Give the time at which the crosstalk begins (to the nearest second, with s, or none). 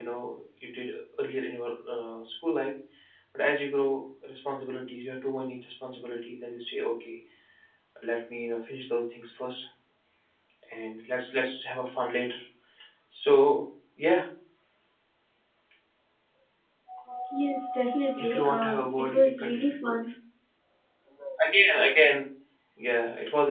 18 s